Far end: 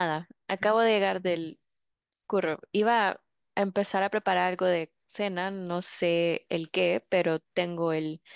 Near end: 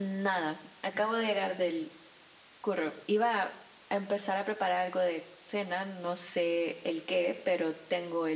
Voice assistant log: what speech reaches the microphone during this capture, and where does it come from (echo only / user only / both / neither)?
echo only